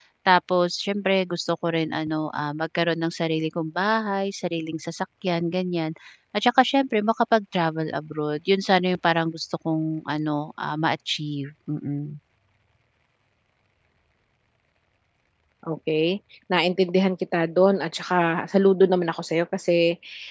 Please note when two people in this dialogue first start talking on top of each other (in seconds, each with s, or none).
none